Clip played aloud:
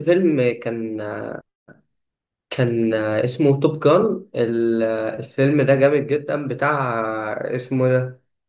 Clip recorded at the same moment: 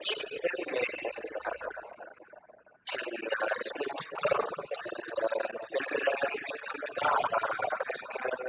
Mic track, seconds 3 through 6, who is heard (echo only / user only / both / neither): echo only